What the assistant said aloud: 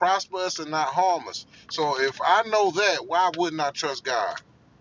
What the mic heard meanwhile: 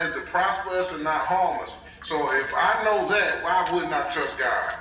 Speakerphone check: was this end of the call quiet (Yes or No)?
Yes